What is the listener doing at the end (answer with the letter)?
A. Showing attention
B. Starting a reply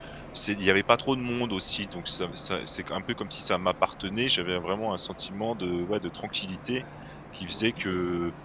A